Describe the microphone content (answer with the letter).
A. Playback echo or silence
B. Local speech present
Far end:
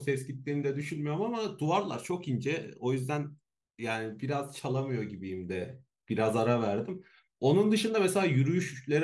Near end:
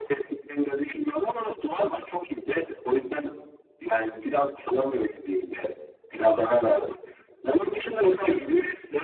A